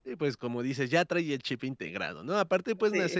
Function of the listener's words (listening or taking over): listening